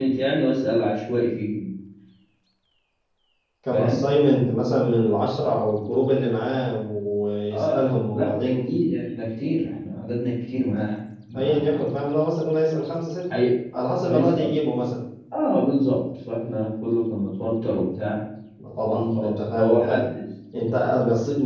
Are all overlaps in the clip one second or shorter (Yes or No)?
No